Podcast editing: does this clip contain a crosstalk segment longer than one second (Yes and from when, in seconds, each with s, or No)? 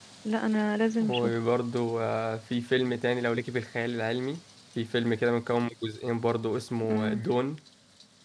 No